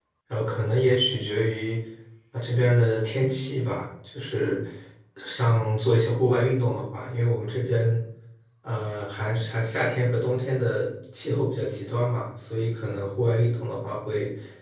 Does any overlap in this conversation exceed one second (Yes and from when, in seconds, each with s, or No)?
No